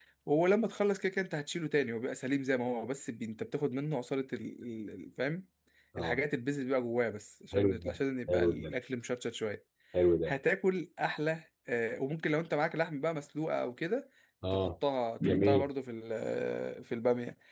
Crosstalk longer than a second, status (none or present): none